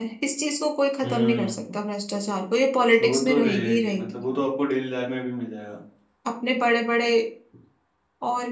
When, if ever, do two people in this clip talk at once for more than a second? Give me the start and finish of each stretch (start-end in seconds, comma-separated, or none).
3.0-4.2